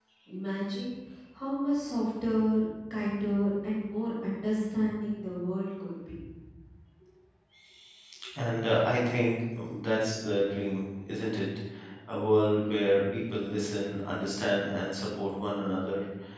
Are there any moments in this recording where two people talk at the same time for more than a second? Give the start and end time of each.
none

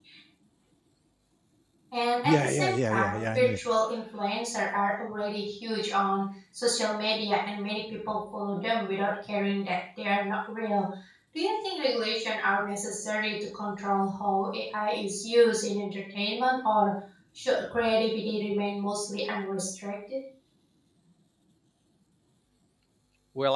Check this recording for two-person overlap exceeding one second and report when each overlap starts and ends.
2.2-3.6

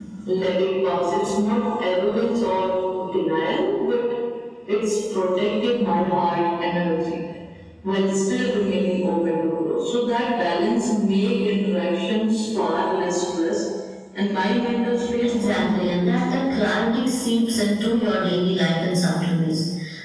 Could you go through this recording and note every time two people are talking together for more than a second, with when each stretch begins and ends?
15.2-16.4

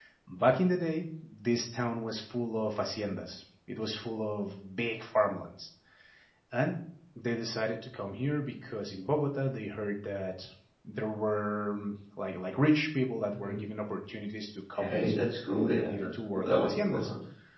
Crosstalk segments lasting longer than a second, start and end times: 15.7-17.1

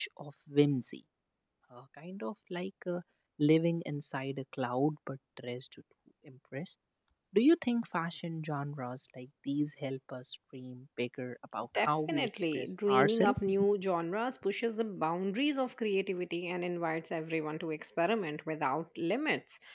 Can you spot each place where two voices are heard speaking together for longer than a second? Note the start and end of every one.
11.8-13.4

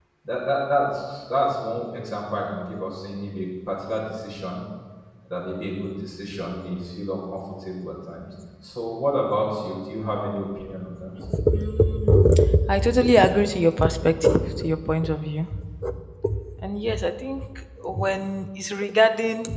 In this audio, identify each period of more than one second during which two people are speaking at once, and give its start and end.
none

